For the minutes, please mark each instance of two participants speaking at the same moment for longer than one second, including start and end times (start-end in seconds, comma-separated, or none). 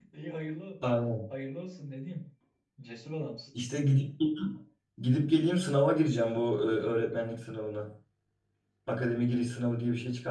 none